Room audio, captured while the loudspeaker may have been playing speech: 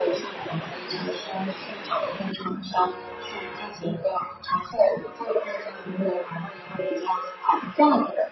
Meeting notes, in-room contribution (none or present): none